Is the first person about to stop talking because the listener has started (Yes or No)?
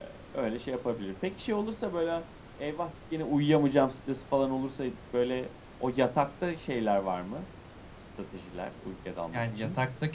Yes